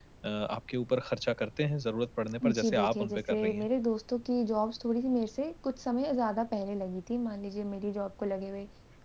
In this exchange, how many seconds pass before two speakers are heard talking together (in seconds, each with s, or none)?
2.4 s